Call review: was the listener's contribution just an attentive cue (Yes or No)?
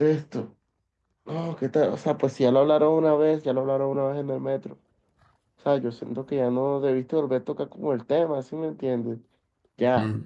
No